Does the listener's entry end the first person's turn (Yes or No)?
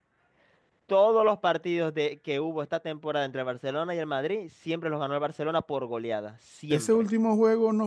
Yes